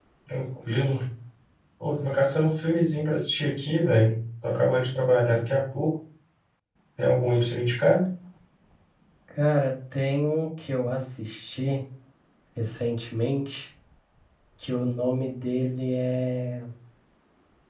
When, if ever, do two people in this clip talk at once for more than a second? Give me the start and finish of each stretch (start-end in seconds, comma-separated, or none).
none